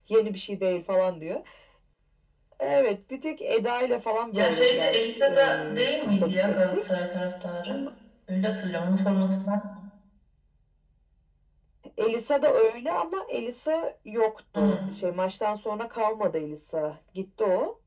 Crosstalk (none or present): present